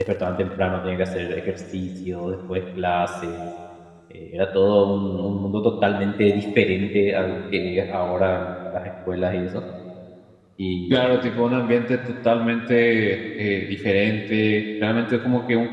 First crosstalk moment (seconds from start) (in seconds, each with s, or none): none